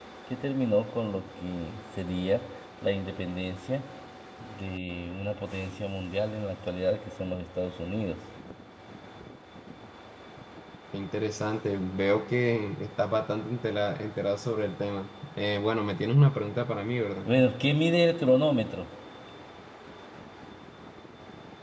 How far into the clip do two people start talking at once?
none

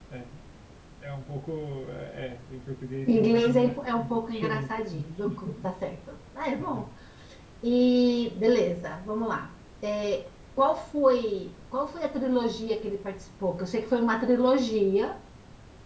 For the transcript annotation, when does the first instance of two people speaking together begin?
3.1 s

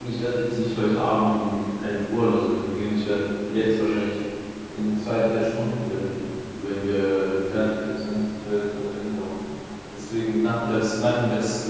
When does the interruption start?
none

